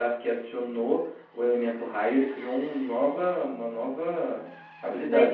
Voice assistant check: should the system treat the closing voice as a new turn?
Yes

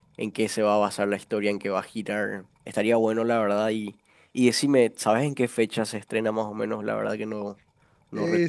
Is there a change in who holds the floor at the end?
Yes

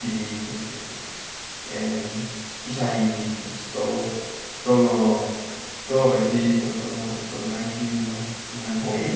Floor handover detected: No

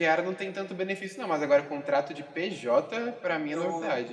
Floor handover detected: Yes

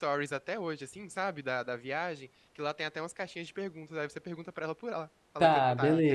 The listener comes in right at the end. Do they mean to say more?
Yes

